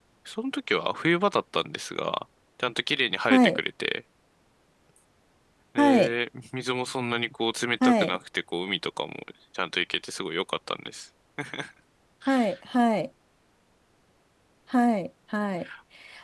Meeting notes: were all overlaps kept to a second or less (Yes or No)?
Yes